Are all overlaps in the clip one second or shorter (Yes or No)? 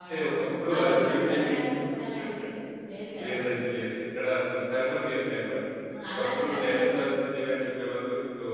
No